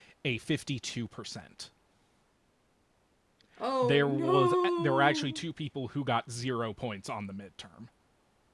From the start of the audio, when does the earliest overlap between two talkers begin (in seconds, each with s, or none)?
3.8 s